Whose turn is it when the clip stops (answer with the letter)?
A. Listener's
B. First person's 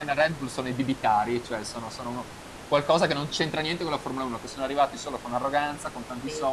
B